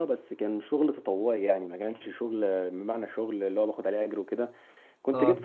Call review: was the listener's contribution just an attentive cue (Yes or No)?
Yes